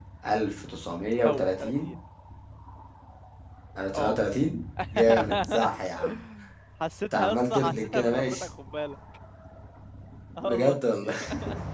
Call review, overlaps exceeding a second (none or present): present